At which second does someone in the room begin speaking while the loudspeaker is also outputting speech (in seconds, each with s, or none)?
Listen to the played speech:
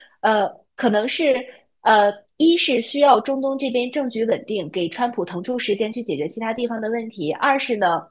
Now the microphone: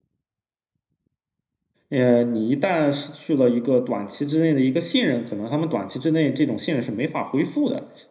1.9 s